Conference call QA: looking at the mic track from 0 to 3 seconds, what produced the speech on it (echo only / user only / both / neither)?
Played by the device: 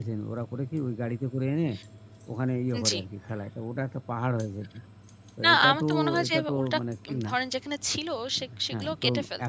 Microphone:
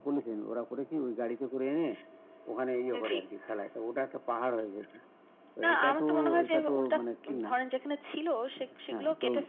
echo only